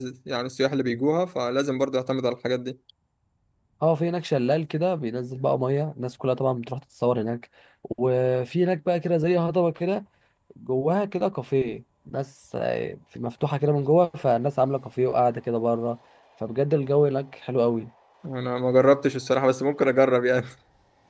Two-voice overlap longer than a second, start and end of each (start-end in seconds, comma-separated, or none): none